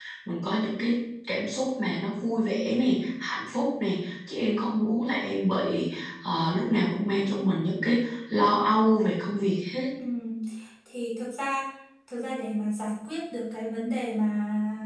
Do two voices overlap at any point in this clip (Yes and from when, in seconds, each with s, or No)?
No